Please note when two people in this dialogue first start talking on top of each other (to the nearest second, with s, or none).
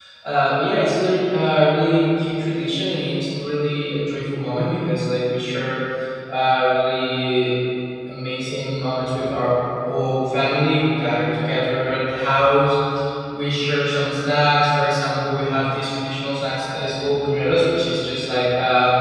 none